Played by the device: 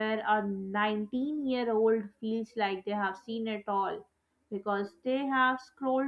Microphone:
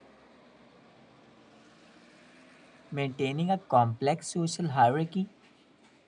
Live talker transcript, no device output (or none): maintaining a complex social hierarchy,